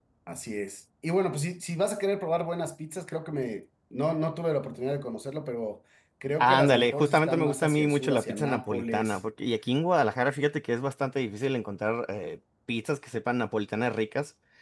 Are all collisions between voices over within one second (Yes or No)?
No